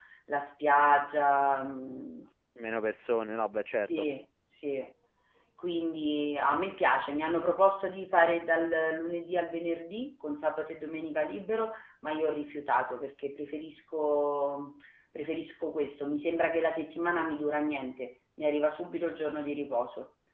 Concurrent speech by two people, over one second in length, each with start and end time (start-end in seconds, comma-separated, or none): none